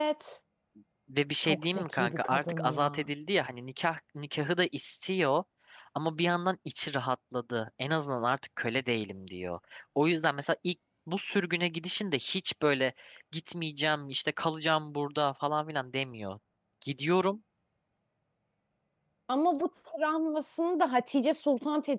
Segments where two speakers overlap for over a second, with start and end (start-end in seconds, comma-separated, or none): 1.4-3.1